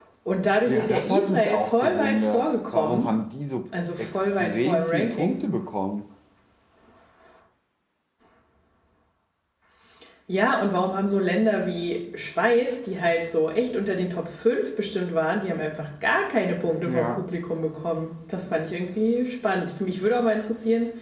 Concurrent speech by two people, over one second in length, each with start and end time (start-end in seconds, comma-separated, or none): 0.7-3.1, 4.0-5.4